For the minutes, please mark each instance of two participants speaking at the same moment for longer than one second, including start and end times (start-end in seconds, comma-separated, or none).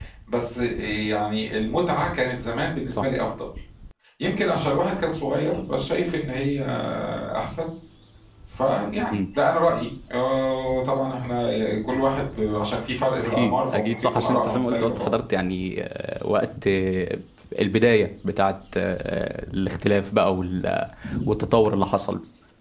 13.2-15.1